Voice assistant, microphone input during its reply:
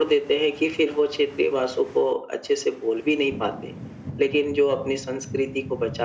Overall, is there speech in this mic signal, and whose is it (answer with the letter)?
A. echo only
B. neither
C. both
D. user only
A